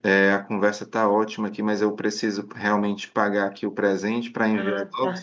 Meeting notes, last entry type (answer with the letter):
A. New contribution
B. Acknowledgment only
B